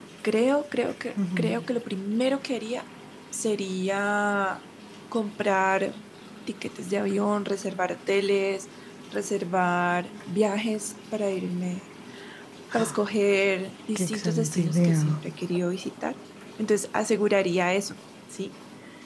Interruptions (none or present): present